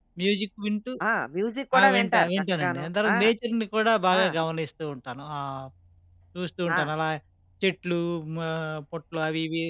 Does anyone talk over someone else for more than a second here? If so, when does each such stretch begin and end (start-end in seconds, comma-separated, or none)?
1.8-3.2